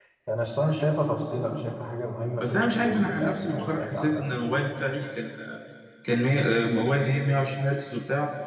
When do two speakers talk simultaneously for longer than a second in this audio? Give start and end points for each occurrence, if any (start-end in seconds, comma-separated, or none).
2.4-4.2